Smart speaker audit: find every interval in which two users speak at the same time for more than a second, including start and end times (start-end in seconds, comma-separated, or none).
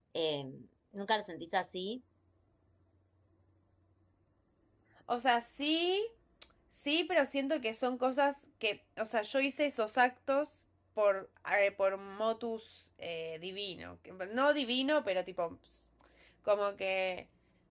none